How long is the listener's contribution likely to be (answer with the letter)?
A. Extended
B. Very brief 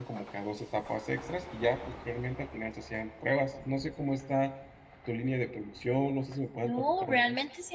A